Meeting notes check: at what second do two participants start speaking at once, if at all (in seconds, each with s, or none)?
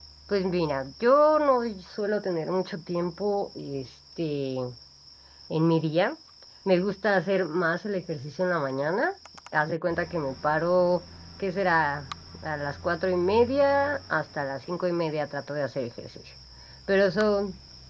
none